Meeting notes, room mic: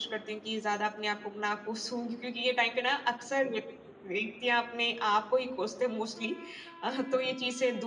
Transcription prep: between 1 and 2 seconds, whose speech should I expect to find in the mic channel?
echo only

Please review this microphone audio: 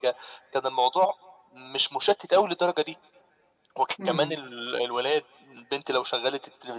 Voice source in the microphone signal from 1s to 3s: echo only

